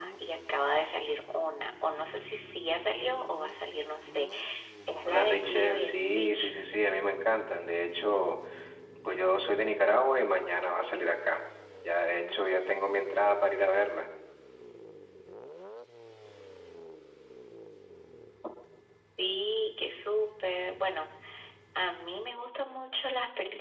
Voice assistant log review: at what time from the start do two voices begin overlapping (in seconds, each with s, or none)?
5.1 s